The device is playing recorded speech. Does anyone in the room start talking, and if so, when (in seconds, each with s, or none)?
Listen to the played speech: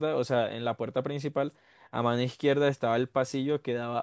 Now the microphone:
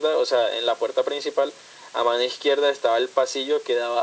none